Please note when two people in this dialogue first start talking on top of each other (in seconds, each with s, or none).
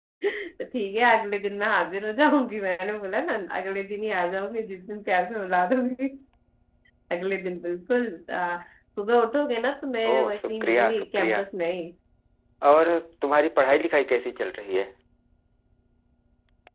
10.1 s